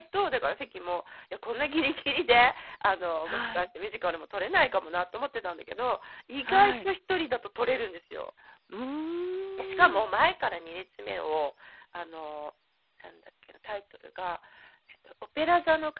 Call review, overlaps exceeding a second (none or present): none